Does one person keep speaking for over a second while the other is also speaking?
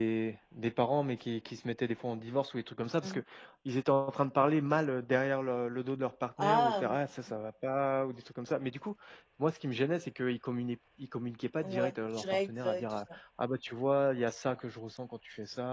Yes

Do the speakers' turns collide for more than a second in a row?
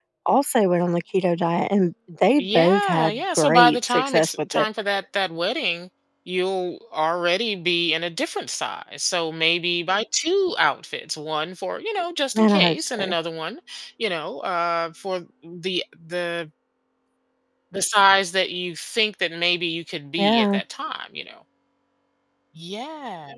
Yes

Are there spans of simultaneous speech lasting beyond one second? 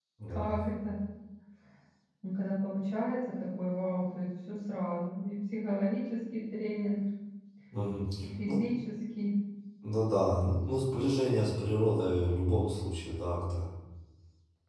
No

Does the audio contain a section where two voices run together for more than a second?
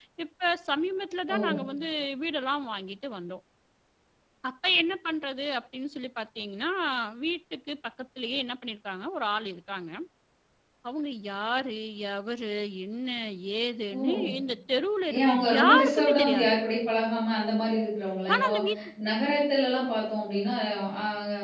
Yes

